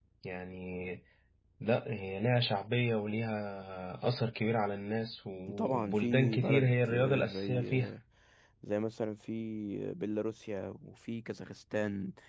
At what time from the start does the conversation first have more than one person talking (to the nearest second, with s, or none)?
5 s